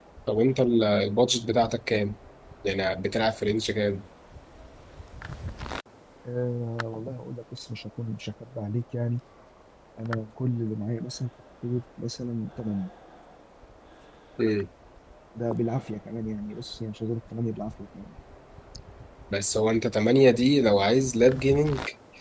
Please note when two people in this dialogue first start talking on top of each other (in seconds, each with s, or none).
none